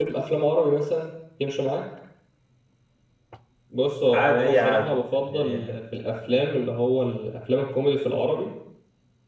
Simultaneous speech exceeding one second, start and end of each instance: 4.1-5.8

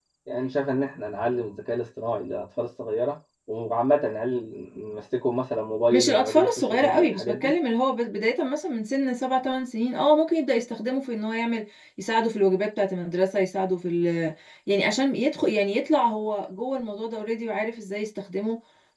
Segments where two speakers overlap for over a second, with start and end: 5.9-7.5

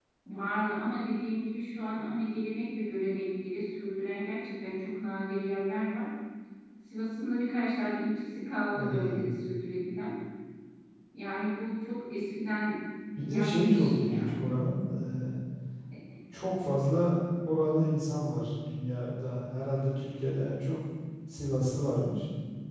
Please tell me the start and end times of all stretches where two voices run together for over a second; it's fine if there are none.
13.3-14.5

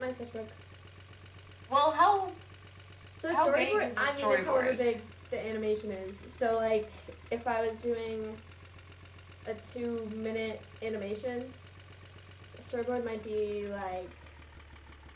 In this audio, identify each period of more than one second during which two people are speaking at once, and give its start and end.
3.3-4.8

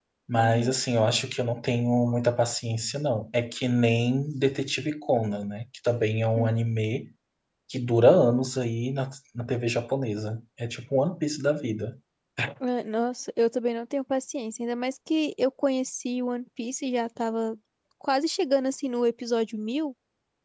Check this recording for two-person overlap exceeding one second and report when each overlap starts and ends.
none

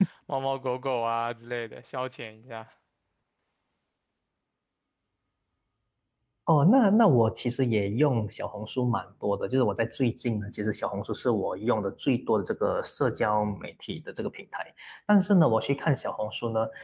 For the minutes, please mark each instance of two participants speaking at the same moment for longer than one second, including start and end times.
none

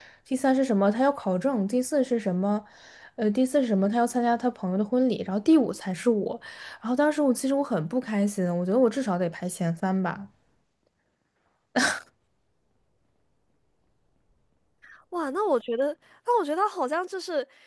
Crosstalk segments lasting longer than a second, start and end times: none

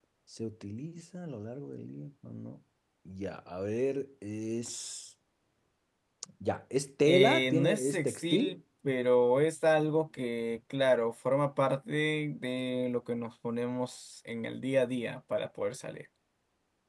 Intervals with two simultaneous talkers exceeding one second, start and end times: 7.0-8.5

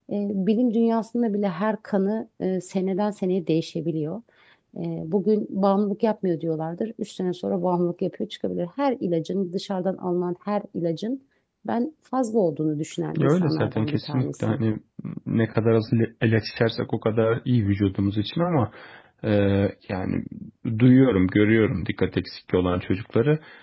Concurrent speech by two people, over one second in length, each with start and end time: 13.2-14.6

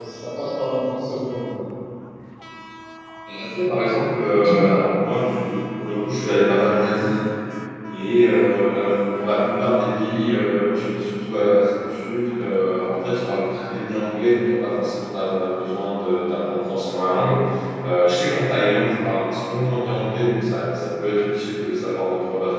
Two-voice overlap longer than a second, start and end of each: none

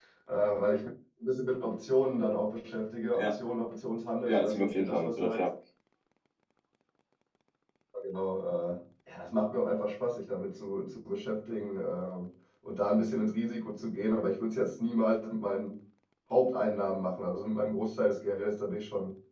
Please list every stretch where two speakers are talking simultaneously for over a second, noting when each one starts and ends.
4.2-5.5

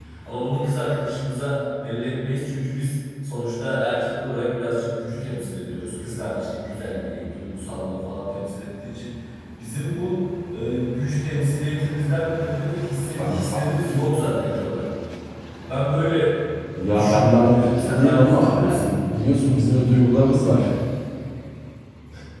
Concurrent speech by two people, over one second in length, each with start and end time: 16.9-18.9

